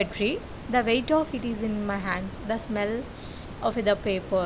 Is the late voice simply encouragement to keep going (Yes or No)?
Yes